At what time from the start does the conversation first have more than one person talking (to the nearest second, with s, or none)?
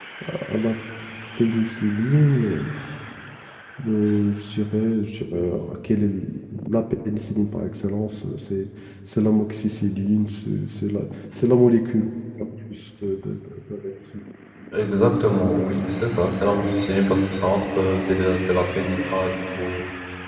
none